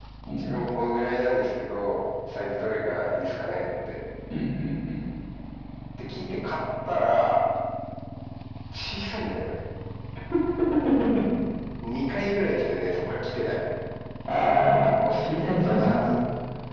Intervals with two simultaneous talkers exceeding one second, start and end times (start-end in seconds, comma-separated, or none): 14.8-16.2